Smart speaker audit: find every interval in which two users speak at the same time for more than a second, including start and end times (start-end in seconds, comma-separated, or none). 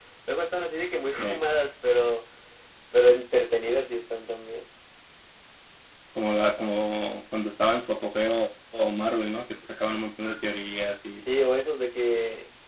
none